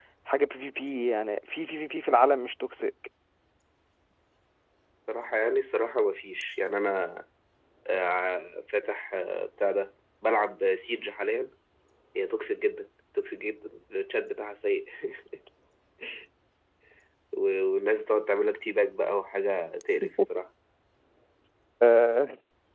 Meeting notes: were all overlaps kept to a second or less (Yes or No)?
Yes